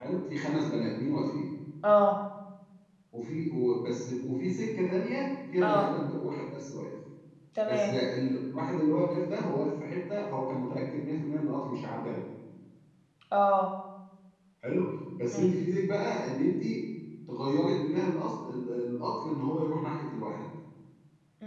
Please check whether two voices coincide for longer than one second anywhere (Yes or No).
No